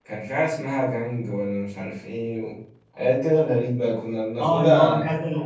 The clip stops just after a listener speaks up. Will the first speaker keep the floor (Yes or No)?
No